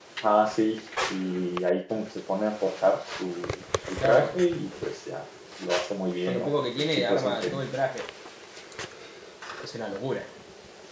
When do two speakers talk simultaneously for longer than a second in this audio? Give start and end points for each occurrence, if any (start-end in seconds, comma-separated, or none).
6.3-7.6